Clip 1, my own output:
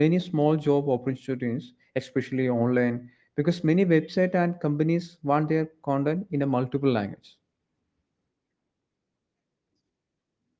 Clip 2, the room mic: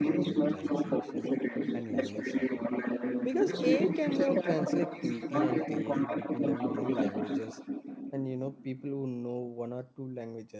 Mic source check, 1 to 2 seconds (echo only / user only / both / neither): both